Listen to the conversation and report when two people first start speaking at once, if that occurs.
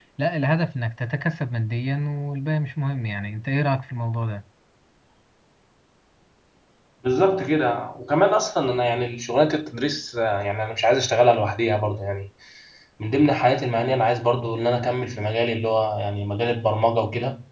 none

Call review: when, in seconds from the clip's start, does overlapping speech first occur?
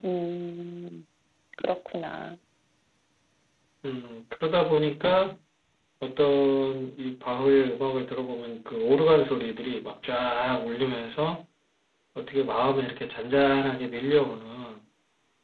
none

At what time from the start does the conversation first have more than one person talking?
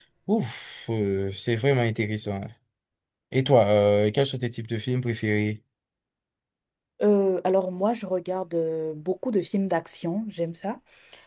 none

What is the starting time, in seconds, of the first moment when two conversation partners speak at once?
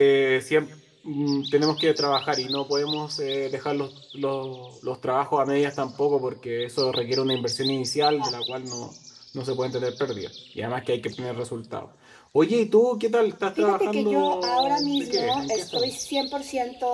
13.6 s

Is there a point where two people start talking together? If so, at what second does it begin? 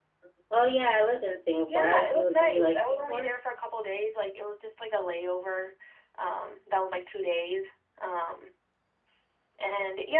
1.7 s

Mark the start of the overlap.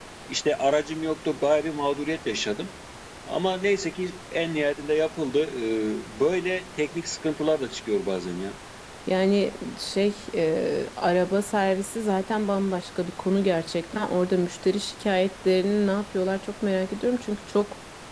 none

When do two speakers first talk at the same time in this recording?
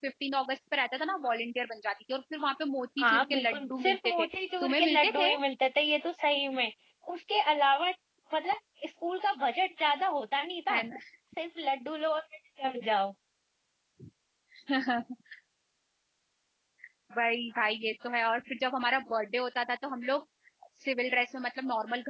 3.0 s

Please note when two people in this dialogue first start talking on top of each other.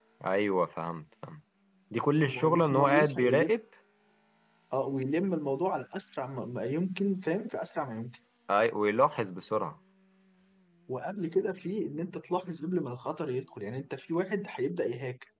2.2 s

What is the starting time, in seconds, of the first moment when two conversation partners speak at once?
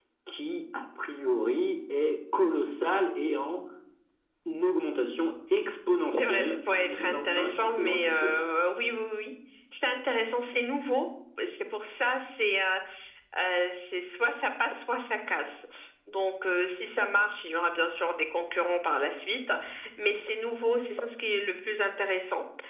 6.1 s

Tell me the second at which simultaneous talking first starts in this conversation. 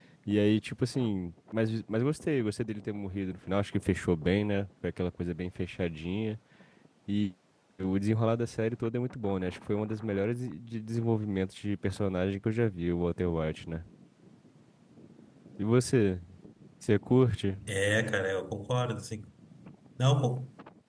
none

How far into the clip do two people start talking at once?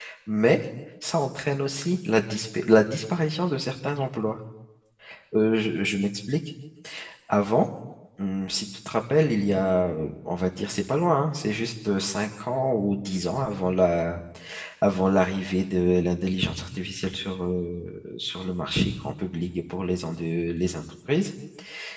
none

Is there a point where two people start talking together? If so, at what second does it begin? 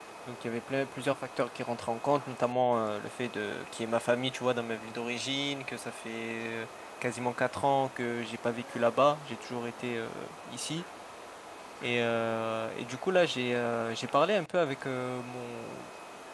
none

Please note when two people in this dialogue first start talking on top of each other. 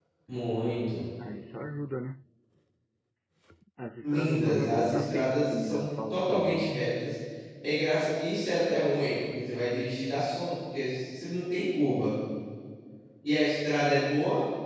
4.0 s

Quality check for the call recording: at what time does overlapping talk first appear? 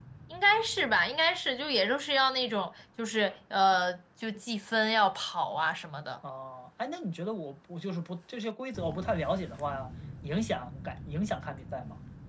none

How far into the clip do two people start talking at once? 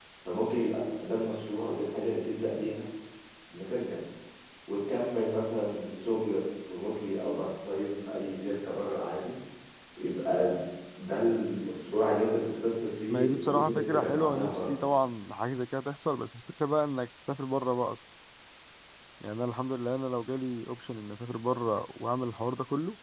13.1 s

